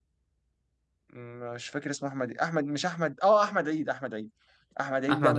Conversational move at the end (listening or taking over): listening